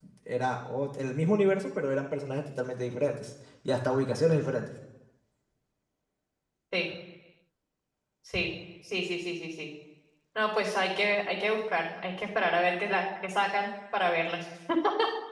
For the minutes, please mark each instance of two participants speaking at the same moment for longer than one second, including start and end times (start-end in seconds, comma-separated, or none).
none